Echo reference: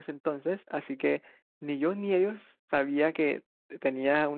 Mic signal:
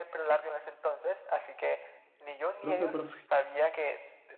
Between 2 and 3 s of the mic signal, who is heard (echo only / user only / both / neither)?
both